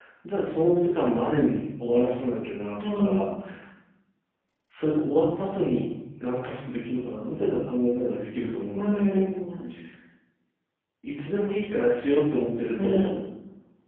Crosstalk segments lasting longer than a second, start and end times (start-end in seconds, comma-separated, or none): none